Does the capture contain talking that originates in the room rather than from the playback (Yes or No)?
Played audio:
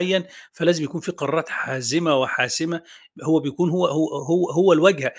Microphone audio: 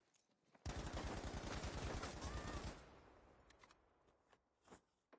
No